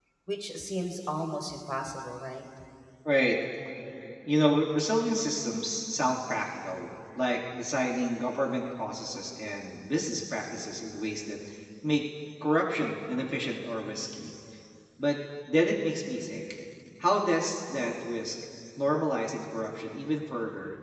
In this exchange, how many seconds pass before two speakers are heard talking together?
none

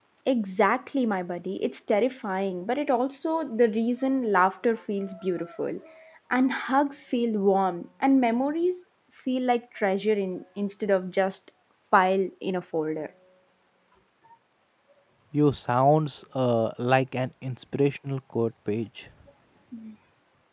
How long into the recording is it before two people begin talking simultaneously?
none

